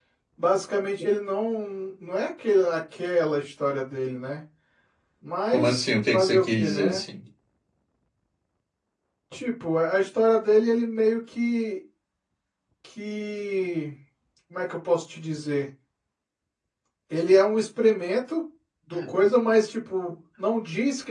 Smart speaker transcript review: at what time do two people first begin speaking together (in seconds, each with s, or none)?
5.5 s